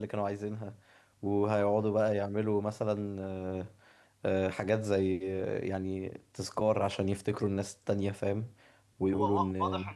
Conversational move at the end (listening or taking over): taking over